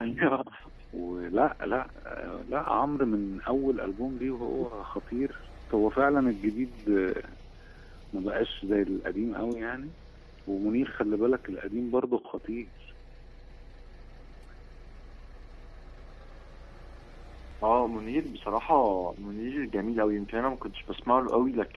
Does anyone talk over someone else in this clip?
No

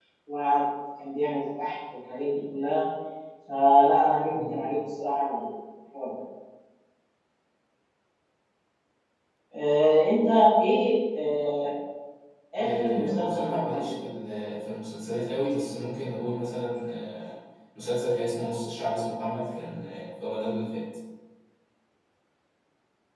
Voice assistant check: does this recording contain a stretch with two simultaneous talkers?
Yes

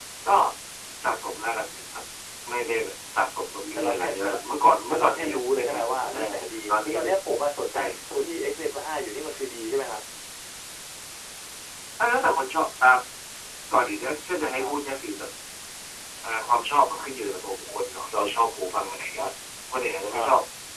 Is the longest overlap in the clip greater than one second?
Yes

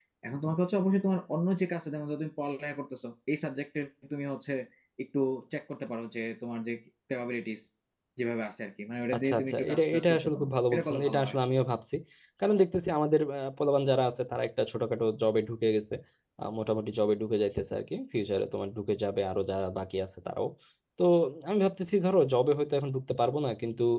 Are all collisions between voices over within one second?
No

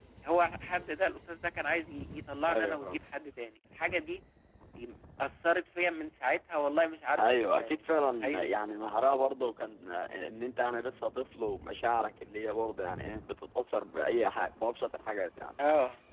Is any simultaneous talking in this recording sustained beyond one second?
Yes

